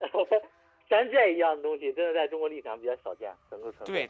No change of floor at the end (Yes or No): No